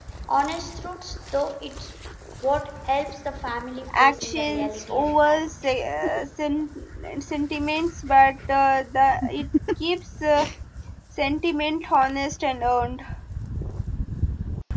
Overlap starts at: 3.9 s

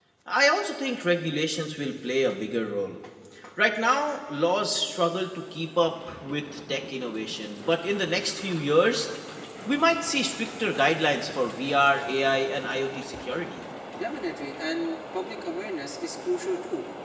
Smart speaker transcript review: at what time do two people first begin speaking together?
none

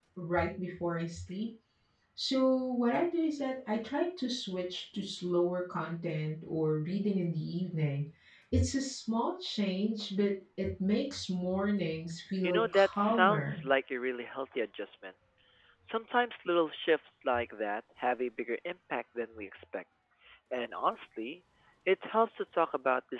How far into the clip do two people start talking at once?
12.4 s

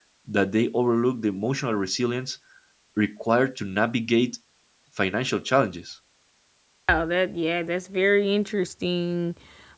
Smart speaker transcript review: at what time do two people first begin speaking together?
none

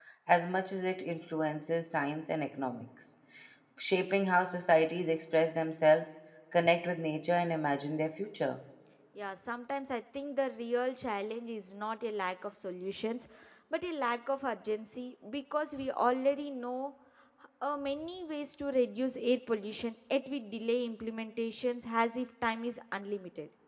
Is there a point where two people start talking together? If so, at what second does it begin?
none

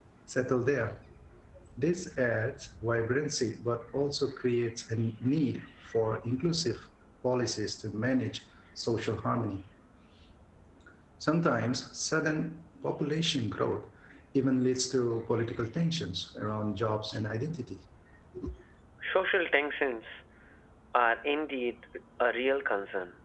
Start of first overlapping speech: none

